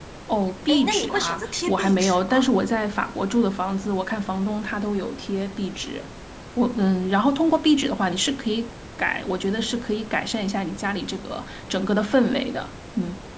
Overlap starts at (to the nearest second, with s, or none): 1 s